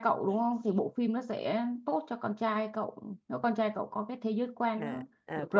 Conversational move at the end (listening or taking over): taking over